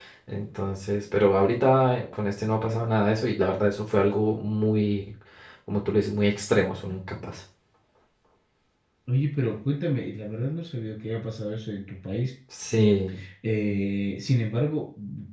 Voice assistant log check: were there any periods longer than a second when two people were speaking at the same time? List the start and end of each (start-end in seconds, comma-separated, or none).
none